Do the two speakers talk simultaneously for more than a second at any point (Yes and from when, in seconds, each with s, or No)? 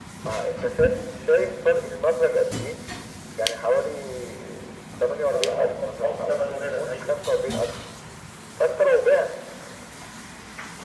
Yes, from 5.3 s